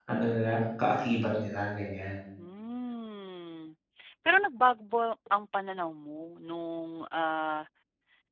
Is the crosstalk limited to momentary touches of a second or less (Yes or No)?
Yes